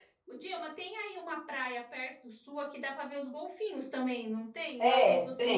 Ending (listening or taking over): taking over